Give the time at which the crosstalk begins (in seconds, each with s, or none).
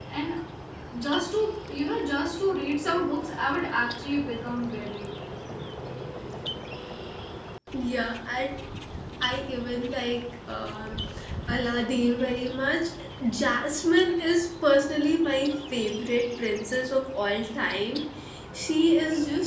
none